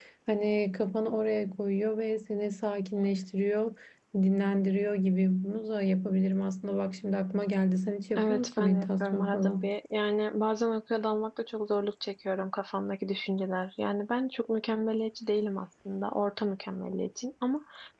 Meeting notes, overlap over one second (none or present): present